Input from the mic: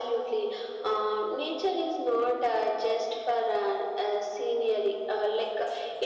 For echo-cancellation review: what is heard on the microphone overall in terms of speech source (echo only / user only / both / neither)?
echo only